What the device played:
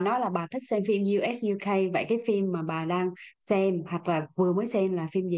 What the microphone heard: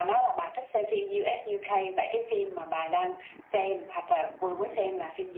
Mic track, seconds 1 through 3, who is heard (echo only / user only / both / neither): echo only